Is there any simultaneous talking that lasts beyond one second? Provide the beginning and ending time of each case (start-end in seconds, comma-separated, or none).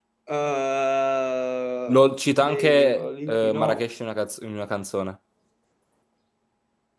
2.4-3.8